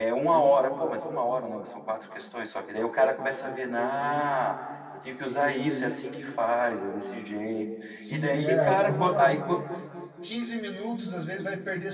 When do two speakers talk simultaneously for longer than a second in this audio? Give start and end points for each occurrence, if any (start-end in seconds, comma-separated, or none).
8.1-9.4